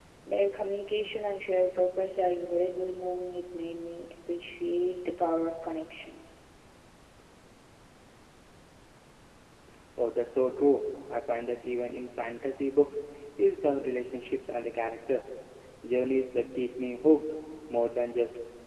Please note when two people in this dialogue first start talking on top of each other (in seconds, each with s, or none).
none